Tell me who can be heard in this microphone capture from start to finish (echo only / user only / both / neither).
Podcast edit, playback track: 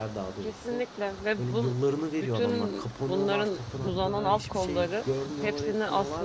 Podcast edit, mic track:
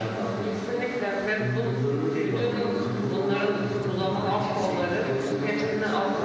both